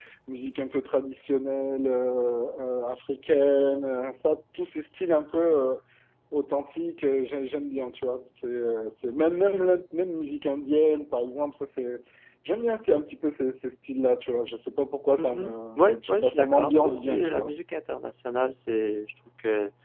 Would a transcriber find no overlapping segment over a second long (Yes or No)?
No